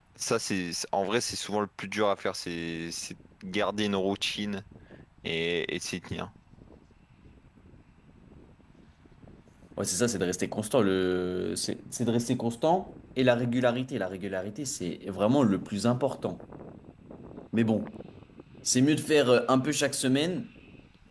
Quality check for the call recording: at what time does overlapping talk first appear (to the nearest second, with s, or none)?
none